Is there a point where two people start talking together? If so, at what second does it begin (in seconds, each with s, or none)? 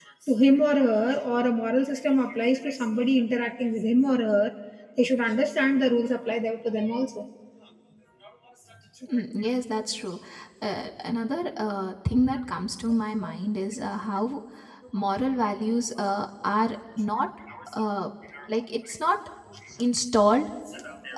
none